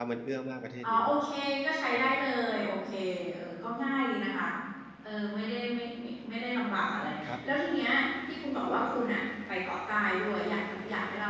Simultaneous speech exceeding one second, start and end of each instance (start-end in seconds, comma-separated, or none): none